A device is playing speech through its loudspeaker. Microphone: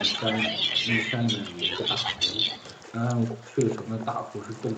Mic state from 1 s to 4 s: both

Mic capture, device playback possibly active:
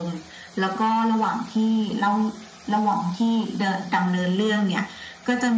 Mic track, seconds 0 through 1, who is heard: echo only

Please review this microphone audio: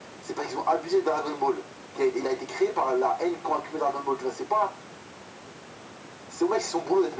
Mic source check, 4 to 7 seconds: echo only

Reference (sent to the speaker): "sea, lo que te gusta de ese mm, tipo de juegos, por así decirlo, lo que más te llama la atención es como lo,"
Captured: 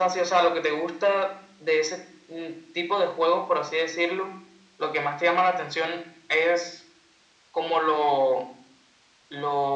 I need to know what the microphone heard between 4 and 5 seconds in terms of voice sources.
echo only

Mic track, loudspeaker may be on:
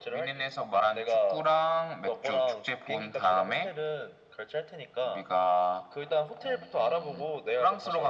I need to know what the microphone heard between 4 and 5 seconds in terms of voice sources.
echo only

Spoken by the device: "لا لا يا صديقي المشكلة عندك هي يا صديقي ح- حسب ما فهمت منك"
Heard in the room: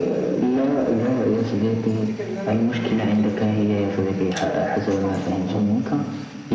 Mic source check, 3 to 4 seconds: both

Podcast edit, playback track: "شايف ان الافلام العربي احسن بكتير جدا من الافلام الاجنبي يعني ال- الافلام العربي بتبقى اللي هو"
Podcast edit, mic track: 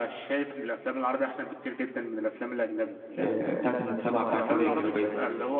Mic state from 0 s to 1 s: echo only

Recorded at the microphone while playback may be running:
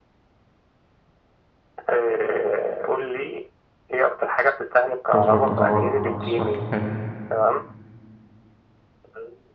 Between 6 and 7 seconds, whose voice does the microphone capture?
both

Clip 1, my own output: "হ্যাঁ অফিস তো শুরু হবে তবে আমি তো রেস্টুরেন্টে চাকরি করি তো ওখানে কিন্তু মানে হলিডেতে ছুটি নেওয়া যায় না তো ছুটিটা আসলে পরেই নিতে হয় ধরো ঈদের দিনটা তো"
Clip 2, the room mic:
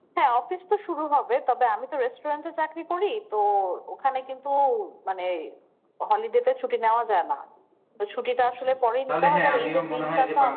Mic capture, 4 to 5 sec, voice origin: echo only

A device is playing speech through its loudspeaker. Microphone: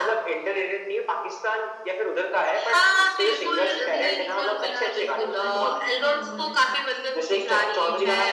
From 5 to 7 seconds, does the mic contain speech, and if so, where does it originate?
both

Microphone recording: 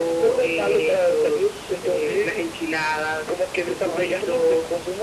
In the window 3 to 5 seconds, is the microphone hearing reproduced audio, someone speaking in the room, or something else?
echo only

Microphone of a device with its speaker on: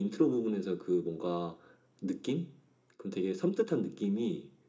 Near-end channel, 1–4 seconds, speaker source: echo only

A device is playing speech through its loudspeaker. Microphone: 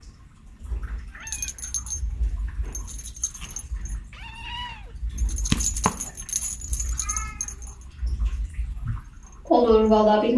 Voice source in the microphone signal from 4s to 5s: neither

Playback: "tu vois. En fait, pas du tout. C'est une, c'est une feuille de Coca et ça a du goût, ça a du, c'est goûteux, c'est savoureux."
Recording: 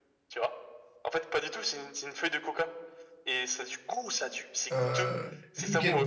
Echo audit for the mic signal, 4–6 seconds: both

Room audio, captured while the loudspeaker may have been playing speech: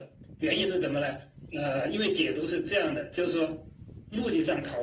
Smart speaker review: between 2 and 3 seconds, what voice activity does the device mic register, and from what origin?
echo only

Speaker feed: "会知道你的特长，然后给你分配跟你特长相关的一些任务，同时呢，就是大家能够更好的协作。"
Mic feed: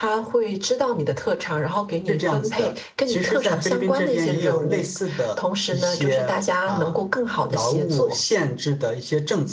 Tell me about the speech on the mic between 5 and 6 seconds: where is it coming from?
both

